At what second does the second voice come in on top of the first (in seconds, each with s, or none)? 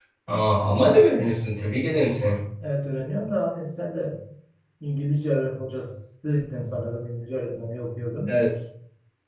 none